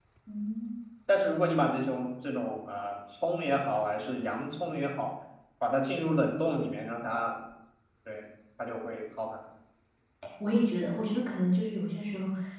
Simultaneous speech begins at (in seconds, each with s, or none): none